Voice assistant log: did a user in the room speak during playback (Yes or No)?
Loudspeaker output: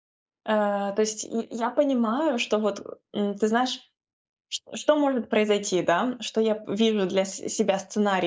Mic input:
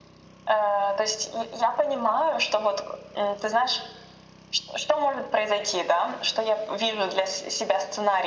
No